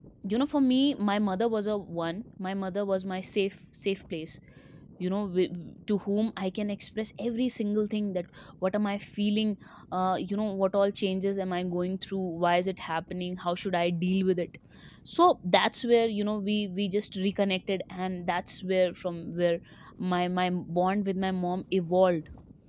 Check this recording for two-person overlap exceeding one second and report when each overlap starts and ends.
none

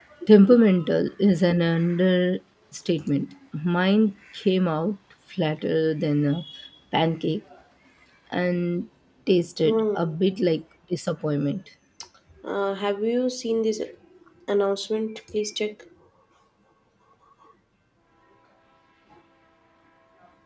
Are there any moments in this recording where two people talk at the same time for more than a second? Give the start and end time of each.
none

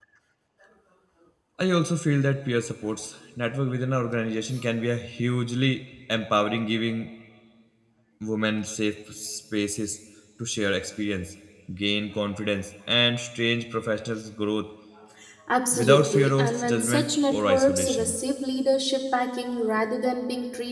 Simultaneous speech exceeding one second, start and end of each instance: 15.7-18.2

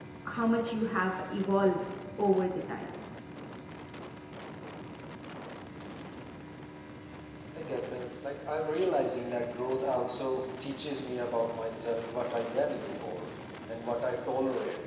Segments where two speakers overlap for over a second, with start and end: none

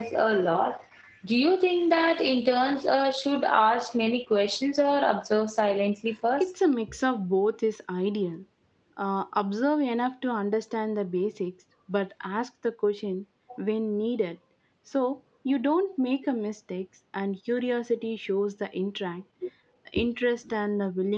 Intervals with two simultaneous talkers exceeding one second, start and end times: none

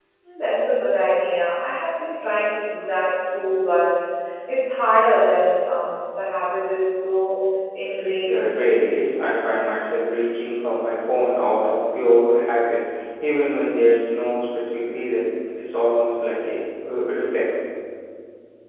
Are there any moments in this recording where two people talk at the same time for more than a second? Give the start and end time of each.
none

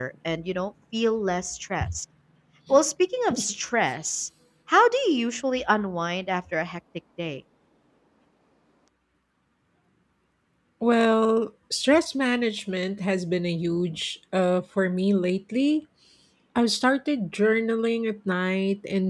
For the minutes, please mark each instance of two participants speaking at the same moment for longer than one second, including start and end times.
none

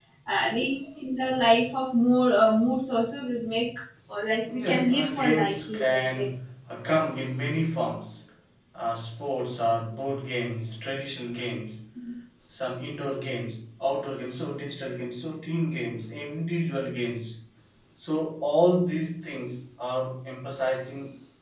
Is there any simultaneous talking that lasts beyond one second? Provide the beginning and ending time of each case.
4.6-6.3

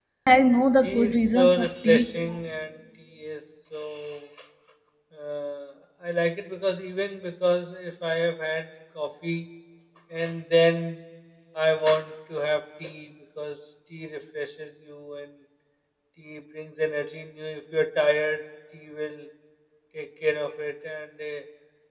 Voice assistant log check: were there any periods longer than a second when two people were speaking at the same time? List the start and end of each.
0.8-2.1

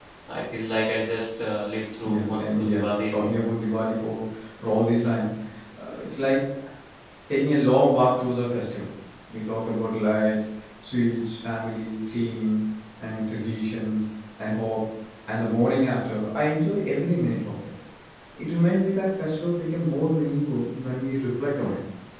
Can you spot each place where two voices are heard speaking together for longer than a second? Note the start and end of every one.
2.0-3.4

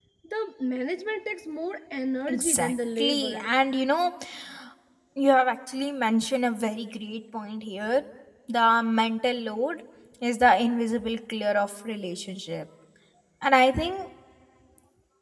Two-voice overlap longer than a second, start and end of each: 2.3-3.5

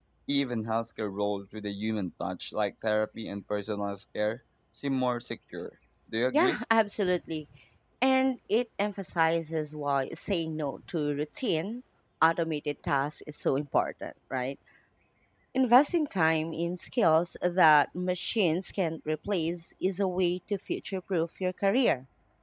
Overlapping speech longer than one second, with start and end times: none

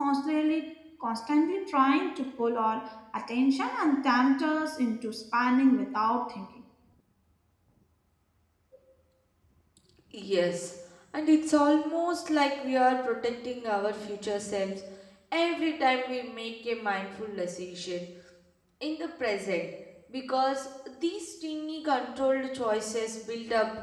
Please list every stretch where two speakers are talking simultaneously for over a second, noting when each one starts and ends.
none

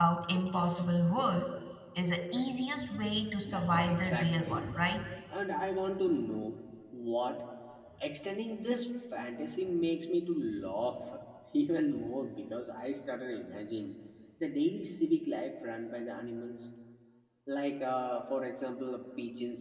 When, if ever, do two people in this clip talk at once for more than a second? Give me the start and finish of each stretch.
3.5-4.7

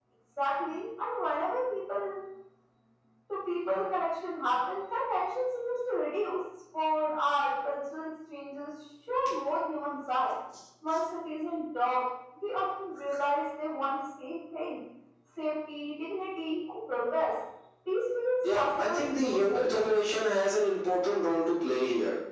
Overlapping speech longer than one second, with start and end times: 18.4-19.9

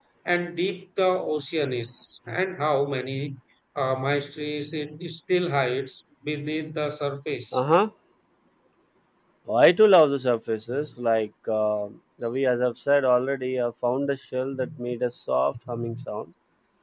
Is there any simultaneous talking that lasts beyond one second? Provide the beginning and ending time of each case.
none

